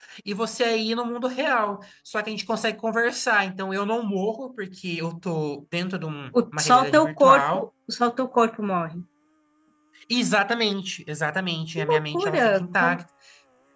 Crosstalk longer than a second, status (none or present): present